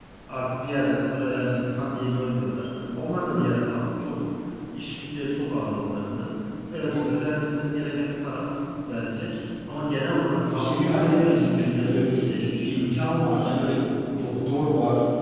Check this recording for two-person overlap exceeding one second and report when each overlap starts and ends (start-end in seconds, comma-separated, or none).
10.4-12.8